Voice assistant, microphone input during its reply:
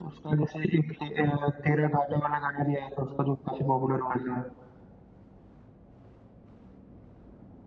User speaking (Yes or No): No